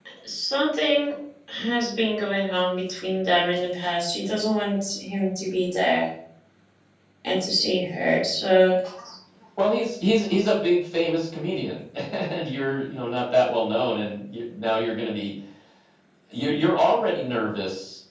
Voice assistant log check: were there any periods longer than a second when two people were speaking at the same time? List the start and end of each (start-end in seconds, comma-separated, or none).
none